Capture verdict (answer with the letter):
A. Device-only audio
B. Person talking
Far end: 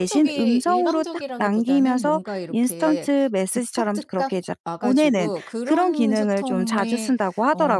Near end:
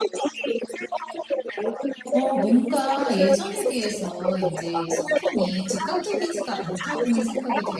B